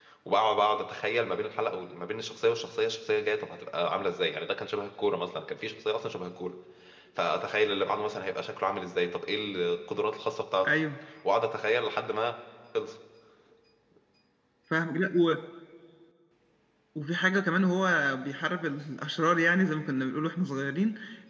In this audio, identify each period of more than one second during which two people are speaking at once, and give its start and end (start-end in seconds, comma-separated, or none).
none